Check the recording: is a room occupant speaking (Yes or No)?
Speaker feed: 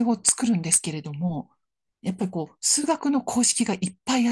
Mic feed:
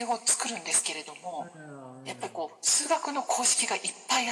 Yes